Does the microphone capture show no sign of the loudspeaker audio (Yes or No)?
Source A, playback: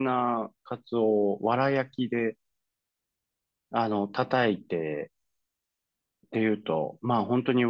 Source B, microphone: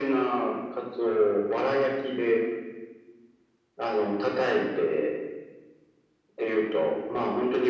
No